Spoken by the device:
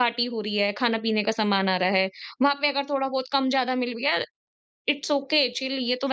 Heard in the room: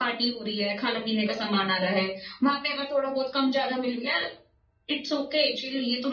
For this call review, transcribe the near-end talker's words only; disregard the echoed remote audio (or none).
none